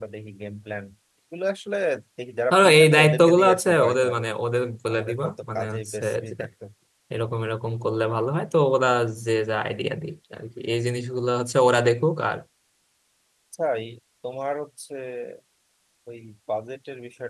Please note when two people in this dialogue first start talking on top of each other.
2.5 s

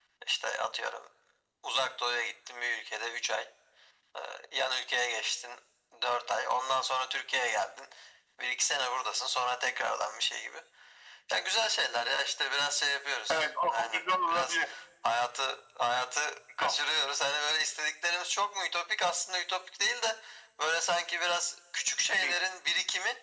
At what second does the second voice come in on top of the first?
13.3 s

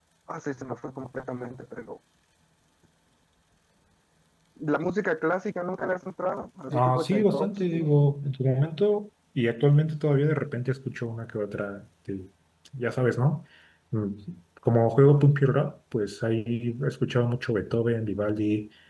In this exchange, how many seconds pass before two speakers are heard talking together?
6.7 s

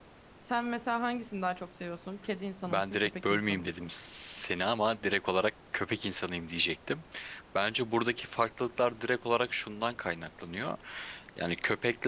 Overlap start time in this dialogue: 2.6 s

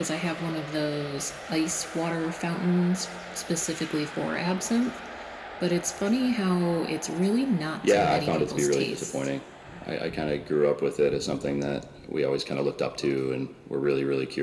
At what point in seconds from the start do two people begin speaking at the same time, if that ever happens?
7.9 s

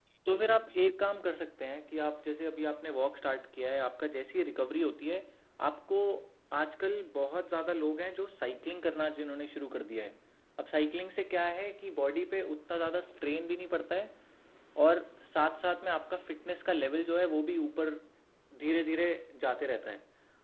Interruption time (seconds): none

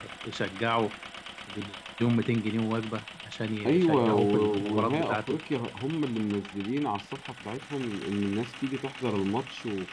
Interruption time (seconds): 3.6 s

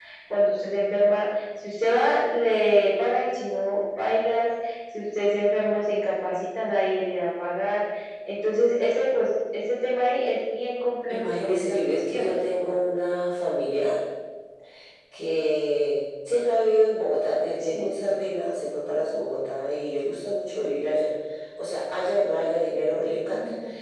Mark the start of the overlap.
11.1 s

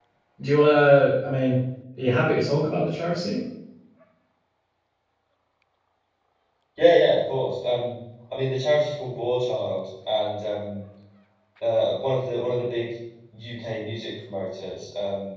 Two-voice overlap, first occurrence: none

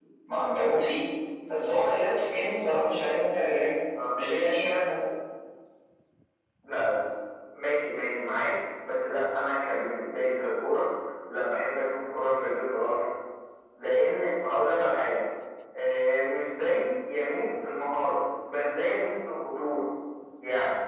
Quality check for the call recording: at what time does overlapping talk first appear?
none

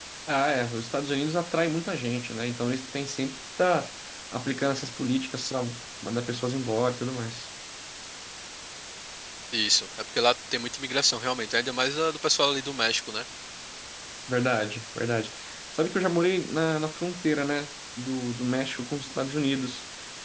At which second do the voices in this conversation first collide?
none

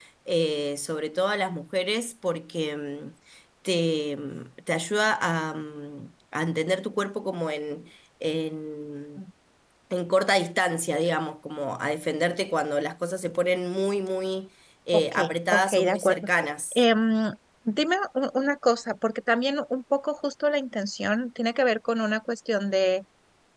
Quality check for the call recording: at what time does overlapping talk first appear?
14.9 s

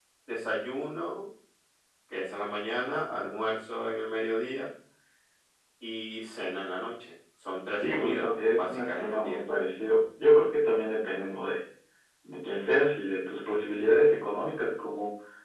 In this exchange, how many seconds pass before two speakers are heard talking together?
7.8 s

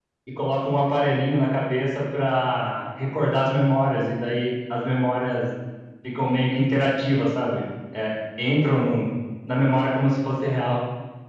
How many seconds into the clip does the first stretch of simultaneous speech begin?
none

